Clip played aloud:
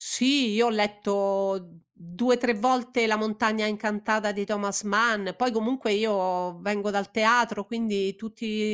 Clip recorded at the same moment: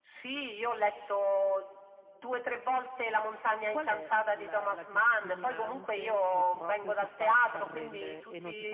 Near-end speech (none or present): present